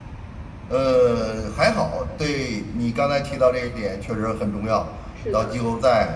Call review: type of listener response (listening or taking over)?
listening